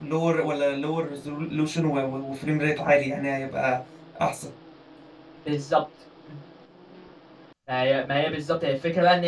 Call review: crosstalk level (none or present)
none